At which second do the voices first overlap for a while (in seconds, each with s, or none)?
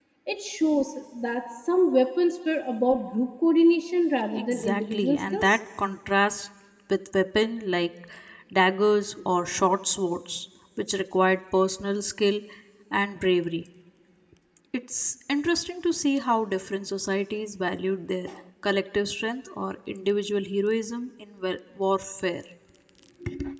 4.3 s